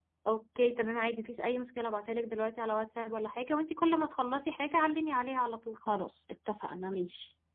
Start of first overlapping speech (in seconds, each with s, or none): none